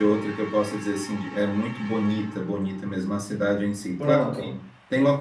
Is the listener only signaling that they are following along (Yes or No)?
Yes